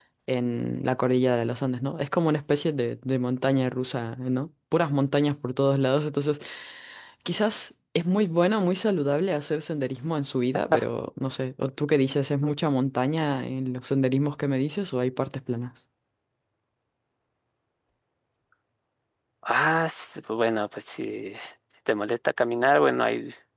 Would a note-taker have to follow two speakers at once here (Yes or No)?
No